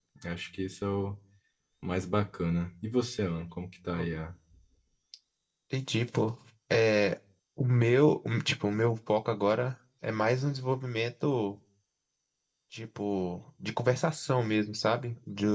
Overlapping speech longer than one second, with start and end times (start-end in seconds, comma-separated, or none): none